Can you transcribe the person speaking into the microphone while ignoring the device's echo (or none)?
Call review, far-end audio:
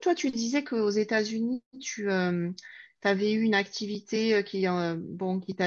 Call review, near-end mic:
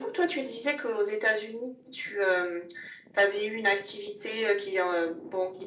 none